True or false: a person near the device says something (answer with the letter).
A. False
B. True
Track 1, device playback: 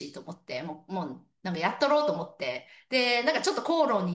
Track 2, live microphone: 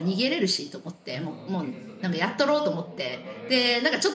B